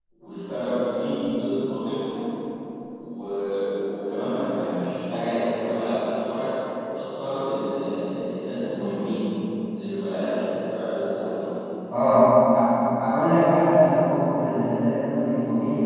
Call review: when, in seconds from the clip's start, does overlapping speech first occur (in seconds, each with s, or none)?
none